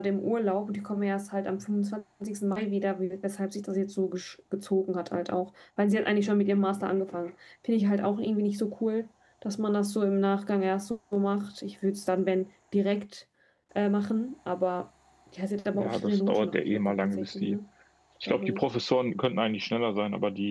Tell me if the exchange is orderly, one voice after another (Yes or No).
No